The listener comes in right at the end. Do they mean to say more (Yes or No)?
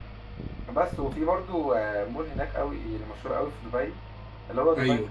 No